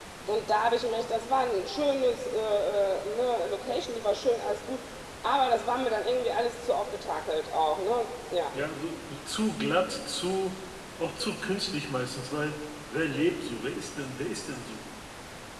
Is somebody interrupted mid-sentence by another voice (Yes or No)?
No